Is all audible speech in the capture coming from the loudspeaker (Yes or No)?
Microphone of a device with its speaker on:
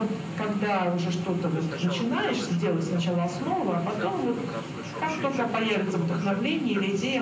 No